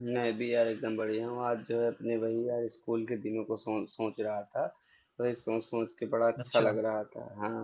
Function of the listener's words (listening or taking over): listening